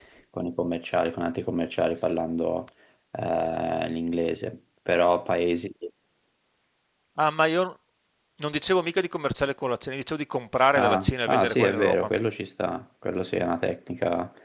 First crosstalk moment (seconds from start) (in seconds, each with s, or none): 10.8 s